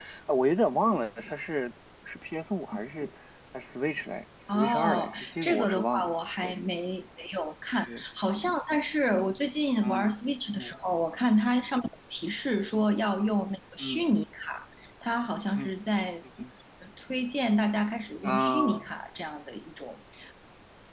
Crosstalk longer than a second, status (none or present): present